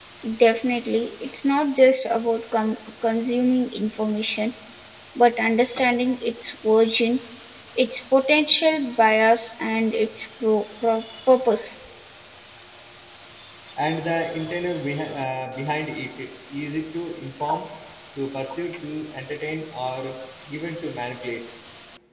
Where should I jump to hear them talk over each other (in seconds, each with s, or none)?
none